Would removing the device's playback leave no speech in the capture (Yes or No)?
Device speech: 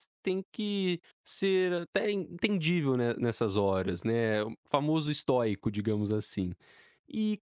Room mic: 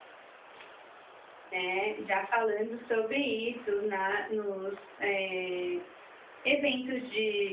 No